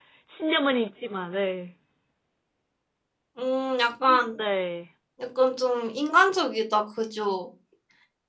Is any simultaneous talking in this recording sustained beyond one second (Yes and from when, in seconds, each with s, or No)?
No